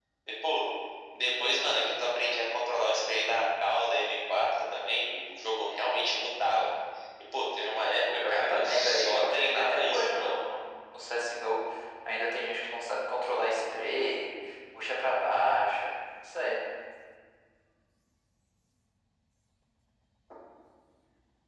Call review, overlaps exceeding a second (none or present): present